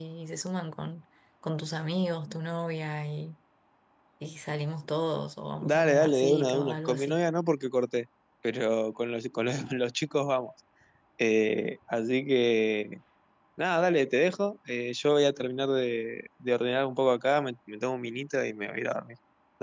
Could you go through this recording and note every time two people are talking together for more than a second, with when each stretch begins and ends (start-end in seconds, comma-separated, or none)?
5.6-7.2